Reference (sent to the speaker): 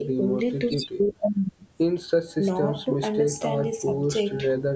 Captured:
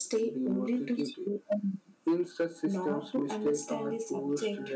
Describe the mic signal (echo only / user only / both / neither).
echo only